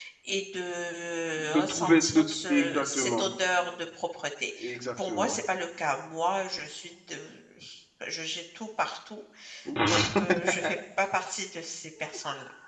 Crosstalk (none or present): present